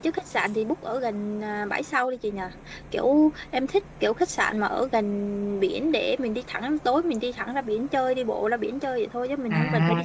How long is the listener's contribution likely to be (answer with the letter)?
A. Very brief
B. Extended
B